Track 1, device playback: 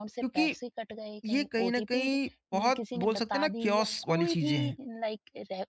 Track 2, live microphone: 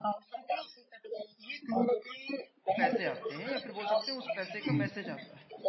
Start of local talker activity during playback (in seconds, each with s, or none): 2.8 s